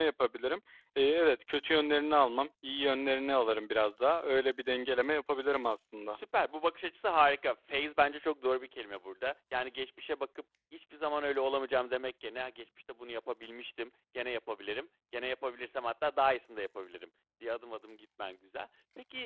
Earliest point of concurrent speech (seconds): none

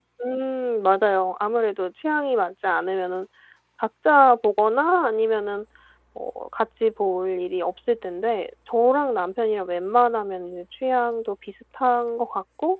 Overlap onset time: none

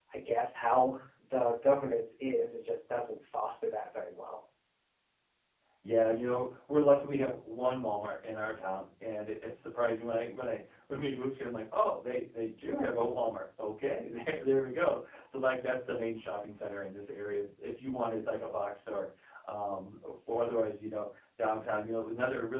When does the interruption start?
none

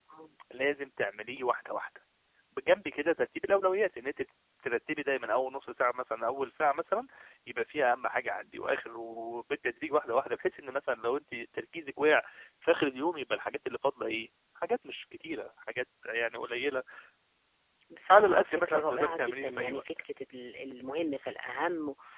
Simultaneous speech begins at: 18.1 s

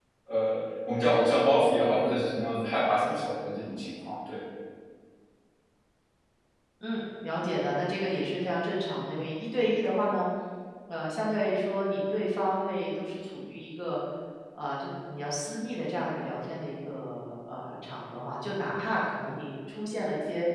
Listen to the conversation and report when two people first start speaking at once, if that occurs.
none

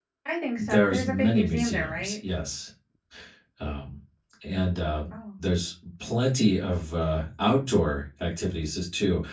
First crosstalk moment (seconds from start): 0.6 s

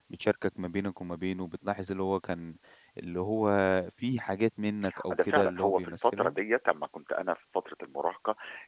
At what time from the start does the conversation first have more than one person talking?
5.1 s

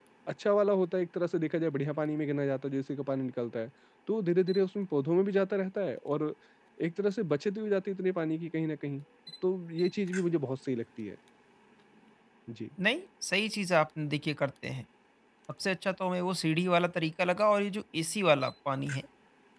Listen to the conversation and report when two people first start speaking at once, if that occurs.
none

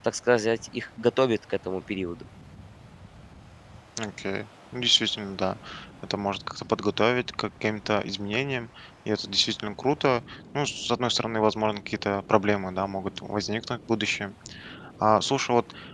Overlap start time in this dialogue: none

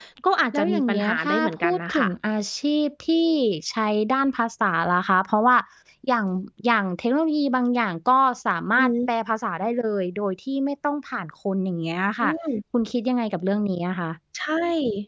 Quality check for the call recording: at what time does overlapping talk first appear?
0.5 s

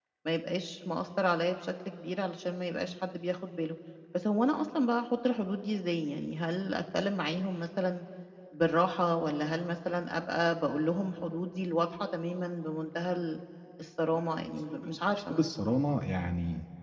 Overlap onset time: 14.1 s

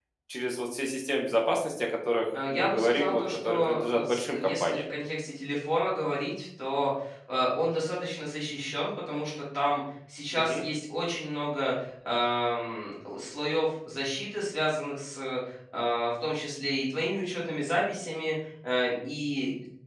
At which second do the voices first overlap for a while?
2.3 s

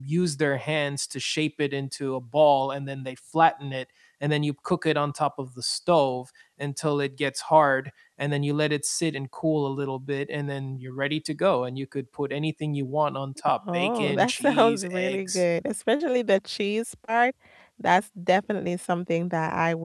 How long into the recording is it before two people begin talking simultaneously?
13.7 s

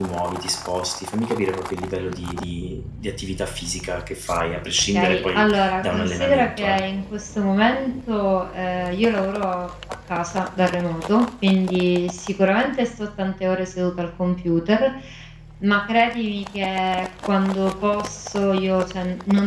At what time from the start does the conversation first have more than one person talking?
4.9 s

